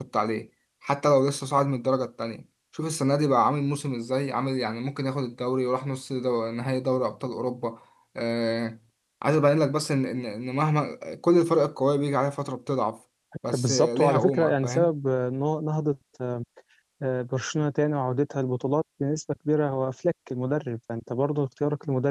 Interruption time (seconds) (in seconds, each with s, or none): 13.5 s